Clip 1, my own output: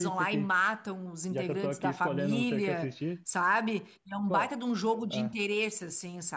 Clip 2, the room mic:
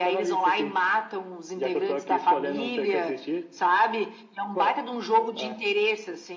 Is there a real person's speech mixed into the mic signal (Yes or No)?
No